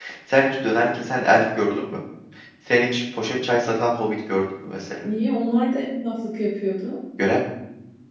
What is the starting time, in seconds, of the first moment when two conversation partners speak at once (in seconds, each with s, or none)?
none